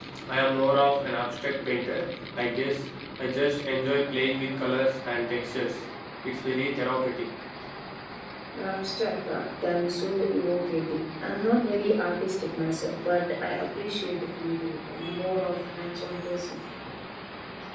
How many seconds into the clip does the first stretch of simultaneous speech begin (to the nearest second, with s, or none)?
none